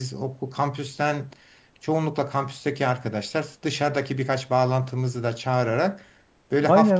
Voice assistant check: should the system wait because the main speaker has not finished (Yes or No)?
No